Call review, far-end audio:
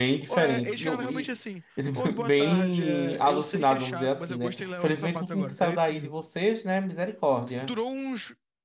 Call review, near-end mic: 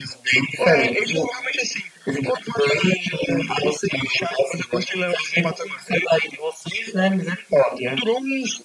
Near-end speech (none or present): none